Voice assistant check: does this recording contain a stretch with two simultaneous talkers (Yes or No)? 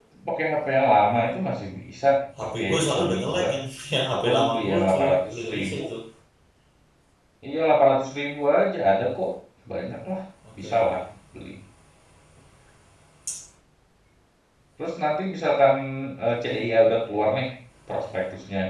Yes